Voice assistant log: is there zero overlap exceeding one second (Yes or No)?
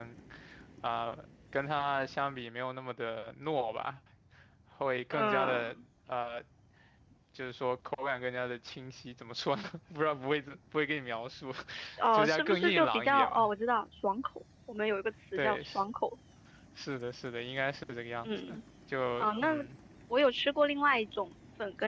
No